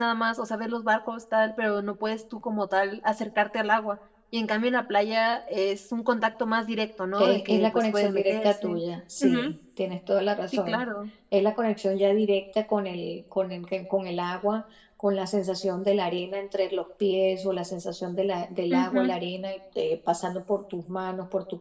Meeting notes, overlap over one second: present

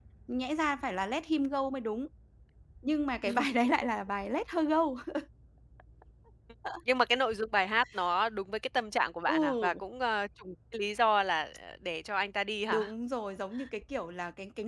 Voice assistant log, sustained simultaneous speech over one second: none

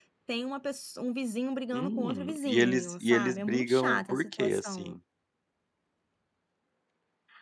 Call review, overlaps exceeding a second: present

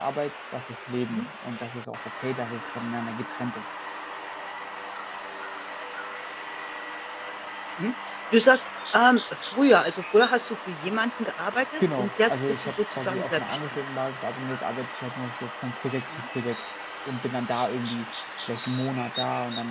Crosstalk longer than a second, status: present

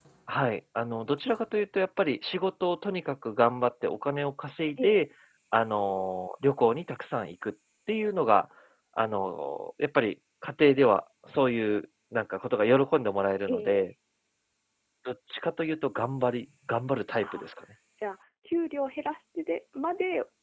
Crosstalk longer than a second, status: none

